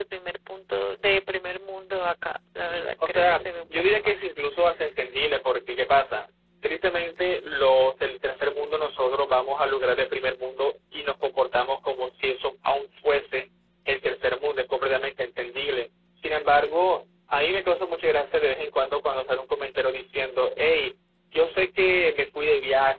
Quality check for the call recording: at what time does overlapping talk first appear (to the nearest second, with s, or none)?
3 s